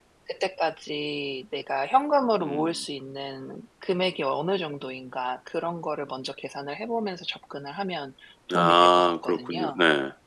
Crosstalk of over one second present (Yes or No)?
Yes